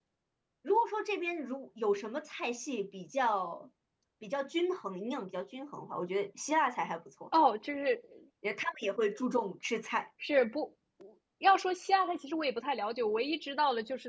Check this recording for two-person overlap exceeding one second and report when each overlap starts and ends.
none

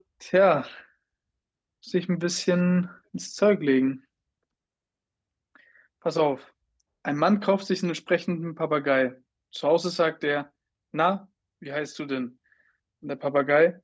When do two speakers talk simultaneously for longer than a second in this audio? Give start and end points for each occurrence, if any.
none

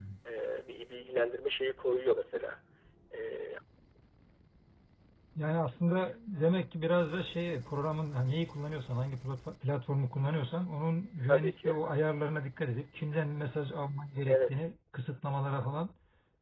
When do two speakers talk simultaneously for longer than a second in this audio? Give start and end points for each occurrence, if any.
none

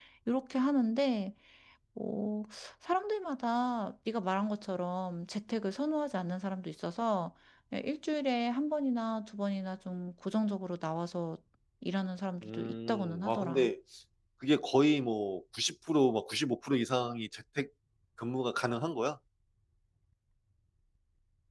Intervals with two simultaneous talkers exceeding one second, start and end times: 12.4-13.7

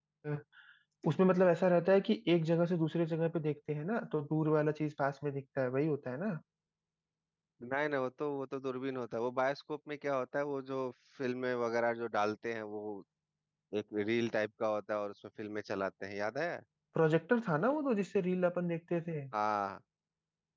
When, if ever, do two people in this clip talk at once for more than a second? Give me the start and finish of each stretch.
none

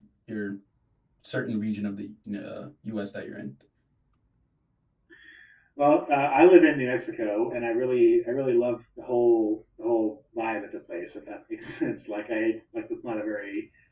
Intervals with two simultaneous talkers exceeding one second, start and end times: none

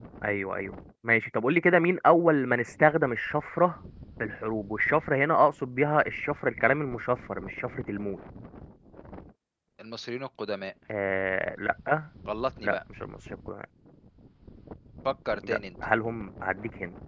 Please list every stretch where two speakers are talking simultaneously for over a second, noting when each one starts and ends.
none

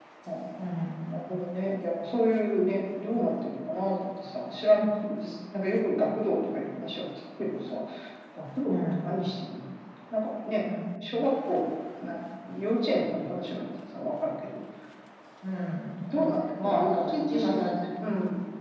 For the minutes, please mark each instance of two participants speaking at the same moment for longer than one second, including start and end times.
16.1-17.6

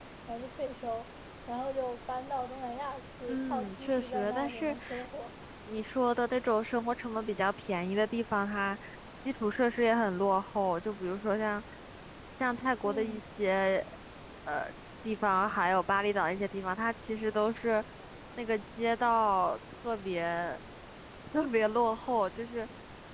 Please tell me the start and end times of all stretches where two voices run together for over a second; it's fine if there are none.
3.3-4.8

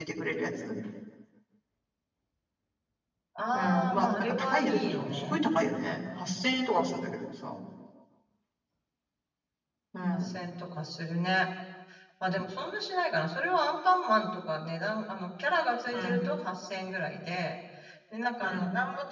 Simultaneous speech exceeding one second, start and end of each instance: 3.5-5.4

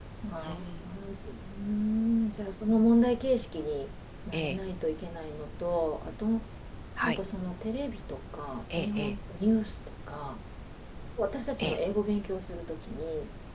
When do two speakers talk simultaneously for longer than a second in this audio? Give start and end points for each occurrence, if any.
none

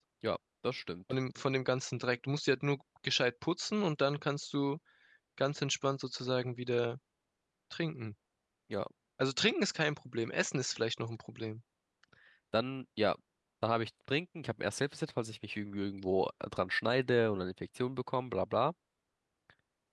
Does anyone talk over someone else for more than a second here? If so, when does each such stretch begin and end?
none

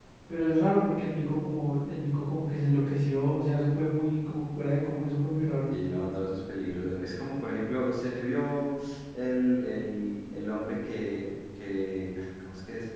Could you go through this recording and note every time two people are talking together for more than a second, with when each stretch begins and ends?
none

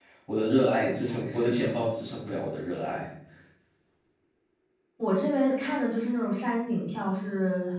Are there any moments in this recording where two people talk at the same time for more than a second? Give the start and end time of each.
none

